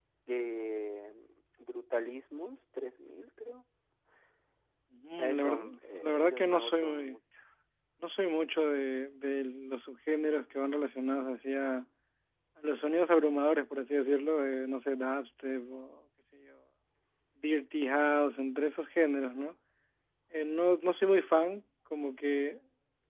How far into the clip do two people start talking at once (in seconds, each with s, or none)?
5.2 s